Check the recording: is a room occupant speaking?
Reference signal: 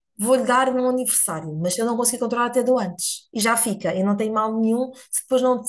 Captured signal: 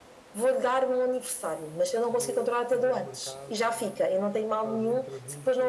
Yes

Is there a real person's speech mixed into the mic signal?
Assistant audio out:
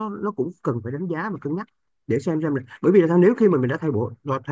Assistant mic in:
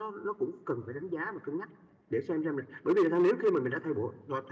No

